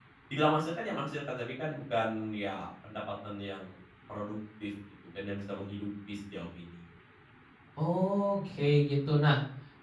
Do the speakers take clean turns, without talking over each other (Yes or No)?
Yes